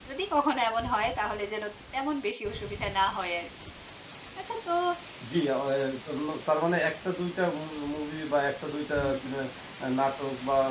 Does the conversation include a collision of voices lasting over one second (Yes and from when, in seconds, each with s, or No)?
No